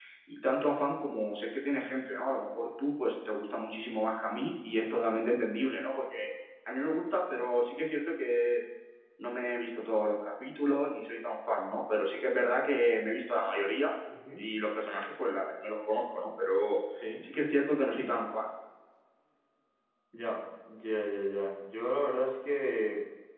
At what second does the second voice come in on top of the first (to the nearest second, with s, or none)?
none